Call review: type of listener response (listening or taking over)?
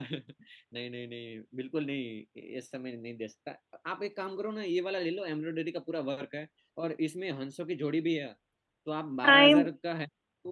listening